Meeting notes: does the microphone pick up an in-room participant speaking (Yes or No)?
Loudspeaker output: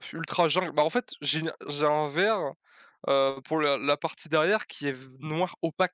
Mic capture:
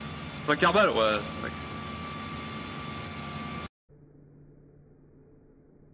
Yes